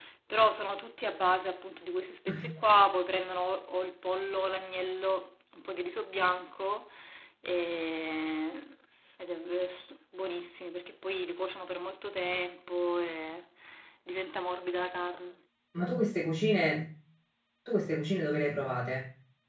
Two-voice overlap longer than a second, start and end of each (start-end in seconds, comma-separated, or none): none